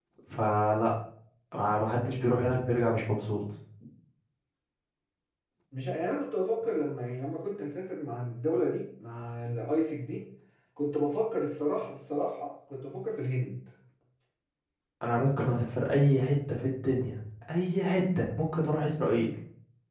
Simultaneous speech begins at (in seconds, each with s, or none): none